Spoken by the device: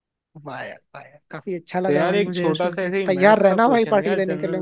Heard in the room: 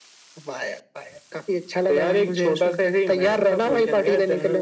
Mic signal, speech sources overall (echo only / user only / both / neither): both